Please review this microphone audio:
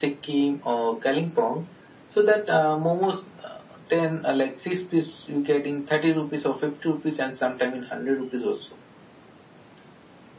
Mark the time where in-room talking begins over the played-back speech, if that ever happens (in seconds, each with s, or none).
none